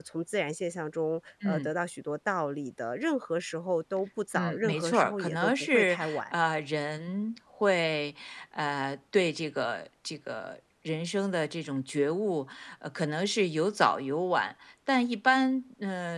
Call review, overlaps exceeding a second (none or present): present